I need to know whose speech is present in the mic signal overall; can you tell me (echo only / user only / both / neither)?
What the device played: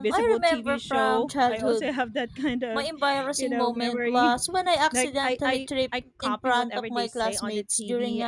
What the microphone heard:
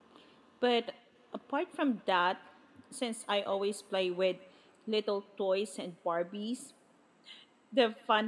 user only